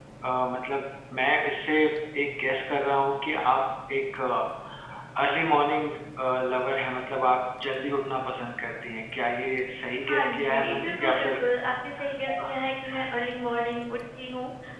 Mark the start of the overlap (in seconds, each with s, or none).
10.1 s